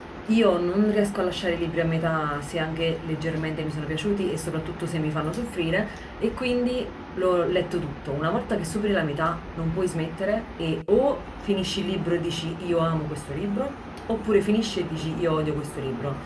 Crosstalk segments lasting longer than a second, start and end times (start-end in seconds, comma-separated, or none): none